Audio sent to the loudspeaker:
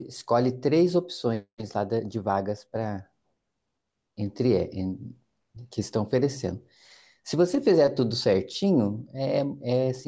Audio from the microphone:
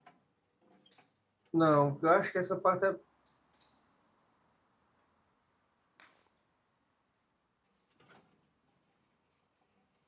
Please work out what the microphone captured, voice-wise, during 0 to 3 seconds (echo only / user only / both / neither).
user only